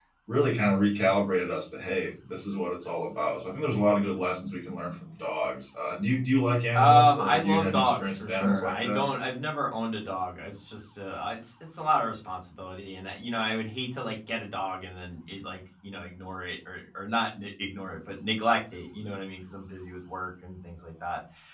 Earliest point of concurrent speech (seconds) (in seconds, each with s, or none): 6.8 s